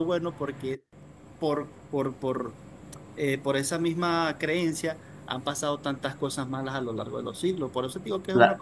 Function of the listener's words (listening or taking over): taking over